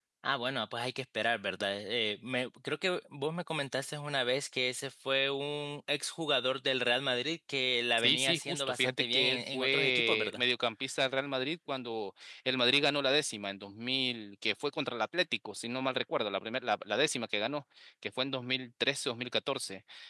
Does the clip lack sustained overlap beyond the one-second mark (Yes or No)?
No